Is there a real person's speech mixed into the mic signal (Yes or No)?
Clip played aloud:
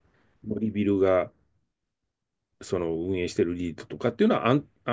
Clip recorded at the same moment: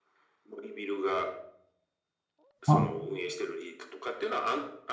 Yes